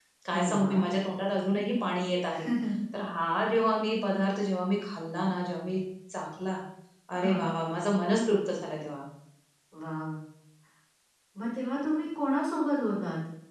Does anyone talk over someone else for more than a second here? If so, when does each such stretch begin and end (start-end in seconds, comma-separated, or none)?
none